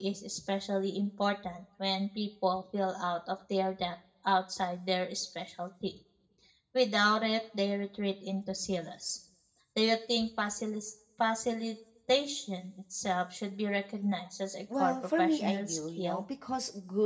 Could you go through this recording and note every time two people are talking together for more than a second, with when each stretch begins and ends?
14.8-16.2

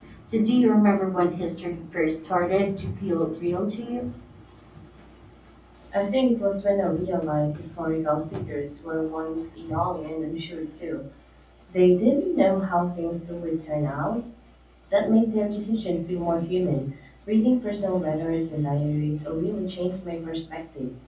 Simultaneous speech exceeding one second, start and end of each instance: none

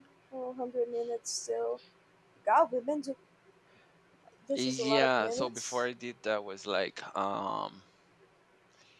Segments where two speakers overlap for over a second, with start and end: 4.6-5.8

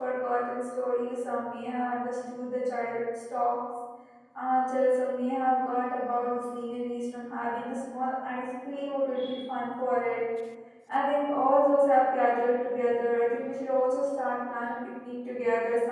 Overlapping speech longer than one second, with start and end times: none

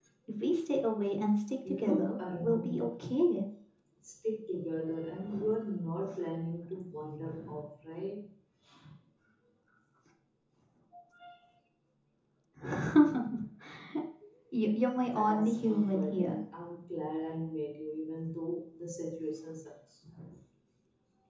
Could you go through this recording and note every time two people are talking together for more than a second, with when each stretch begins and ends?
1.7-2.9, 15.2-16.4

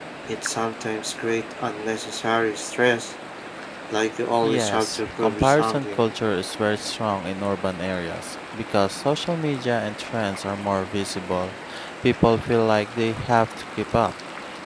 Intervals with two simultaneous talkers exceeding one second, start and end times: 4.4-6.0

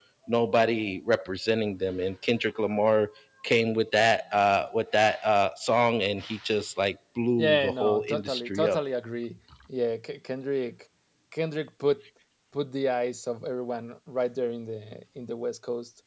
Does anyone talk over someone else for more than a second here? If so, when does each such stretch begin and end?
7.4-8.8

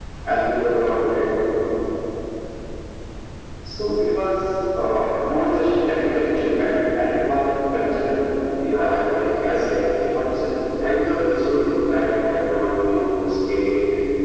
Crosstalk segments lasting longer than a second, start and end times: 8.8-10.2

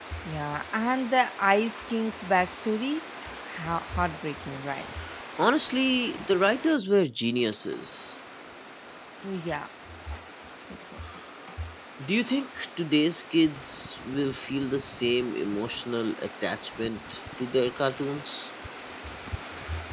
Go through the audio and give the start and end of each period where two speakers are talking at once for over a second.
none

